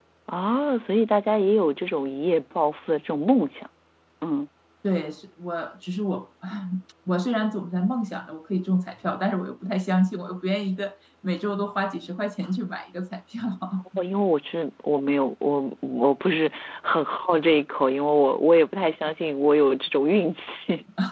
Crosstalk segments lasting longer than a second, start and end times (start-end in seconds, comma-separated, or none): none